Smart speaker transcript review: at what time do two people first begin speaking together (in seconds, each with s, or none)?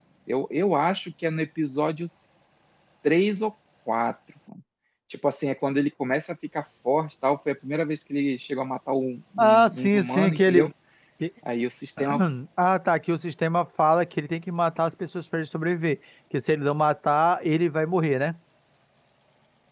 9.4 s